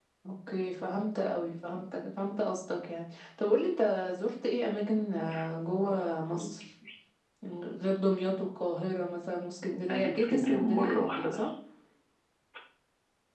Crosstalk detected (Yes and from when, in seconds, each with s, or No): Yes, from 9.9 s